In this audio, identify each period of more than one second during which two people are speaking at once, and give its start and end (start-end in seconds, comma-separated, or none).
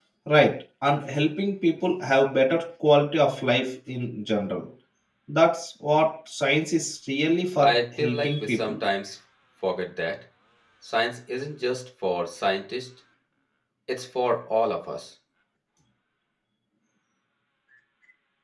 7.5-8.8